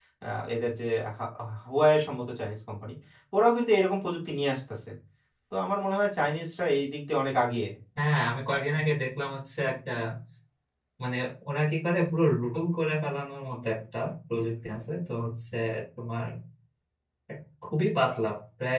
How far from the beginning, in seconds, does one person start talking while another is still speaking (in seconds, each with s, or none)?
none